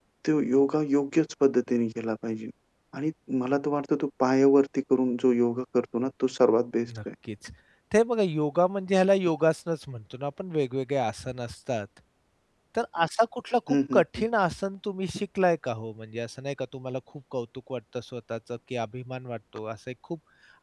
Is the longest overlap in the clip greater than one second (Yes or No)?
No